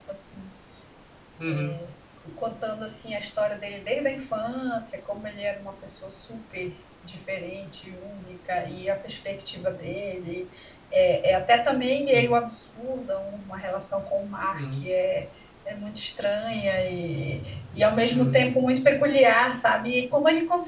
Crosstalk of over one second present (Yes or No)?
No